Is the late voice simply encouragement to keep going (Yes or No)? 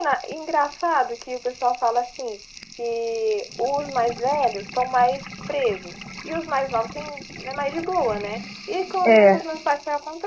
Yes